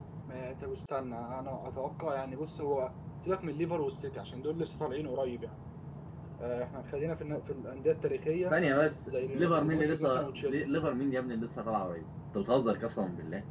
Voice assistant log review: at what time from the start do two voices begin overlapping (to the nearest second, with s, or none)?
9 s